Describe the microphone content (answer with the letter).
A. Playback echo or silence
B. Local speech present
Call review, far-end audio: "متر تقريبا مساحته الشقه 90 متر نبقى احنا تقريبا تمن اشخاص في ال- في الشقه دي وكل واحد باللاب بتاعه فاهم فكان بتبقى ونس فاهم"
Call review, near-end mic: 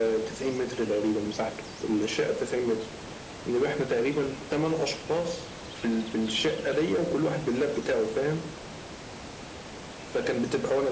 A